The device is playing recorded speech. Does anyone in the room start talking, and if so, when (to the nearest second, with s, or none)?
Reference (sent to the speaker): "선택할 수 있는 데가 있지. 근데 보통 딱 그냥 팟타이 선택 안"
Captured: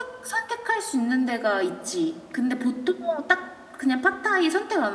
none